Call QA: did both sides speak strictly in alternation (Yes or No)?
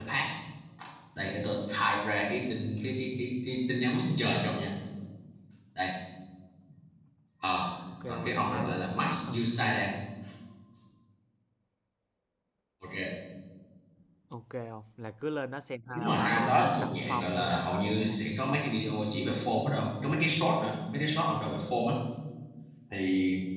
No